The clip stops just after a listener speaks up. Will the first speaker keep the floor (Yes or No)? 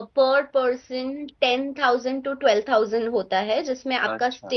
Yes